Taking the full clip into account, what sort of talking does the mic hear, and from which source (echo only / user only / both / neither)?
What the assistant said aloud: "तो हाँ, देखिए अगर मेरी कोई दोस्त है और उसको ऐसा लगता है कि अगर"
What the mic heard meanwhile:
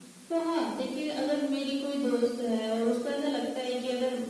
echo only